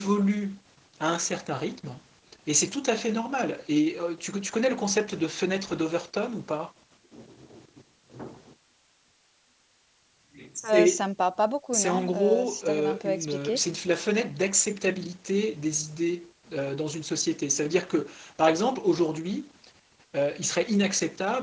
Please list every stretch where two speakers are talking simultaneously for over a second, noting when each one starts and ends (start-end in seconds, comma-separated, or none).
11.7-13.6